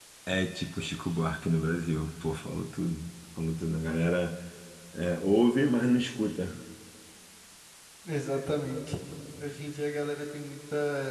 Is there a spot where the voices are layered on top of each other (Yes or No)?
No